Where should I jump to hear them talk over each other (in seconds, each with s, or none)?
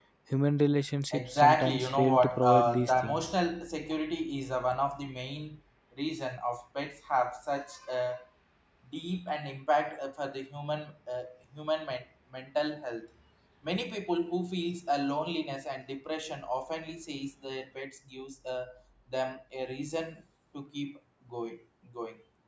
1.1 s